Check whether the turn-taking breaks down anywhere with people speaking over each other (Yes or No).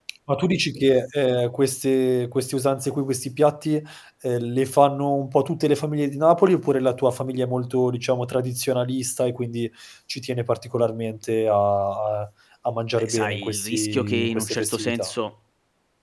Yes